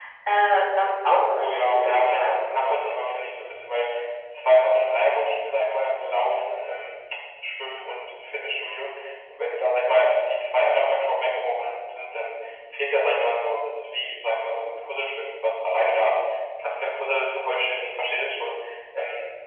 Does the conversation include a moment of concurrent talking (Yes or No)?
Yes